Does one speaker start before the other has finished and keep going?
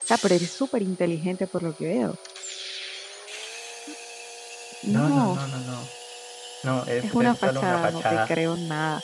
Yes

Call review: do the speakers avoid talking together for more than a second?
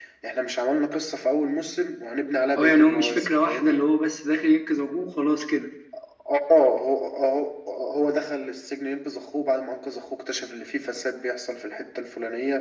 No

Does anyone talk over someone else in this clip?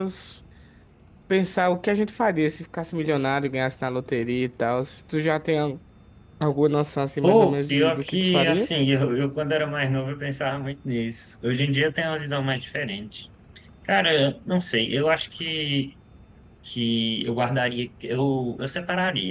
Yes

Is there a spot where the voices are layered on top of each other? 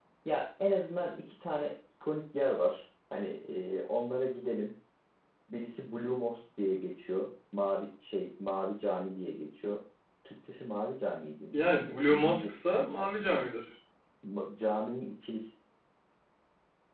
Yes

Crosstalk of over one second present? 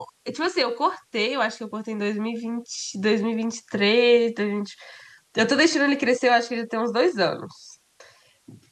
No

